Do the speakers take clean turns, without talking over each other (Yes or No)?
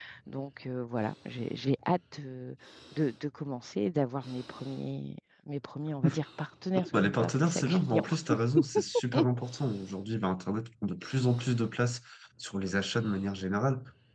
No